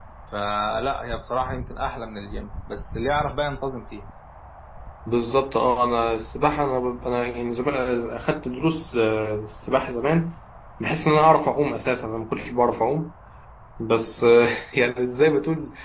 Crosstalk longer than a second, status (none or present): none